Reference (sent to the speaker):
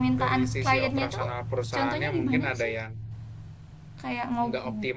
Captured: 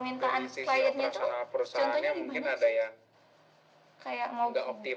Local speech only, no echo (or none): none